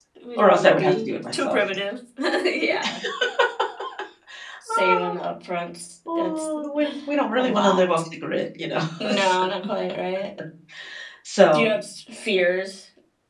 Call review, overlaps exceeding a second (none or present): present